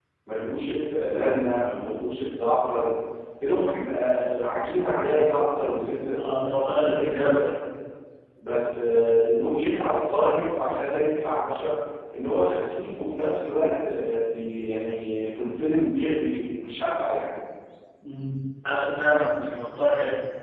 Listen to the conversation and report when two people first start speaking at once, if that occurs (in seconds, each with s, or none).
6.2 s